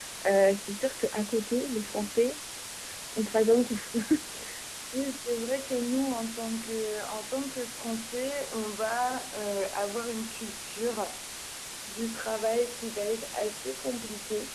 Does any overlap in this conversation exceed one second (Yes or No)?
No